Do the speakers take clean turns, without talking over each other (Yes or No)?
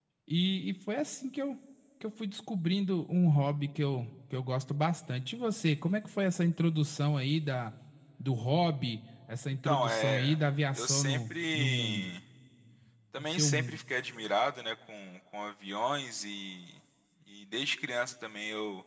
No